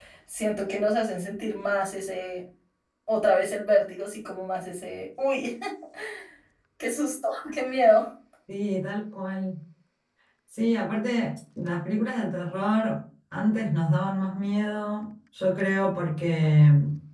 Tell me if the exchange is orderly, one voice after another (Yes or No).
Yes